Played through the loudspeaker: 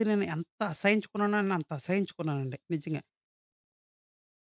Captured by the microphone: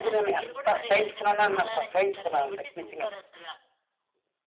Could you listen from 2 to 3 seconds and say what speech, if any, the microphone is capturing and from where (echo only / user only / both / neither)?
both